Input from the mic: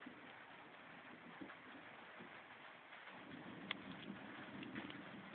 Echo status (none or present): none